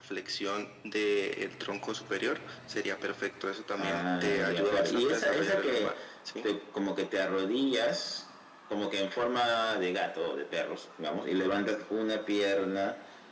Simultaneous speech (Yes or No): Yes